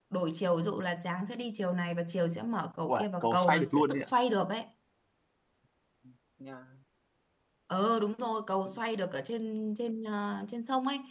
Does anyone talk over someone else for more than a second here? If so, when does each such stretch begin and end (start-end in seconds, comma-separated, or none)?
2.9-4.1